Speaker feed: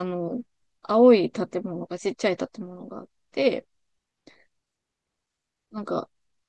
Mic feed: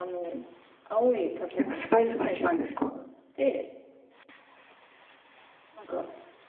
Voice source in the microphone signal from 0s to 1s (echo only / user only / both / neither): echo only